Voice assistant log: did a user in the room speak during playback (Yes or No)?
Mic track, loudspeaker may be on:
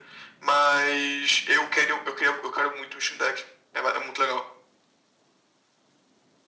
No